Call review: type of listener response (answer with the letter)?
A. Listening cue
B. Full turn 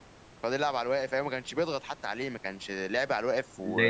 B